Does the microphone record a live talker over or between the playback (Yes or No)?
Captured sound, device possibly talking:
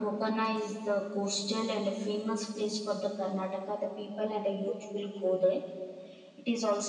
No